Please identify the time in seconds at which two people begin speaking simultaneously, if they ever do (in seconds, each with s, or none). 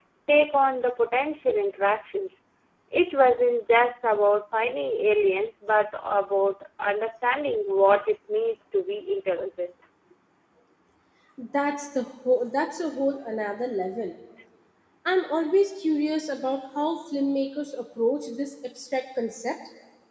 none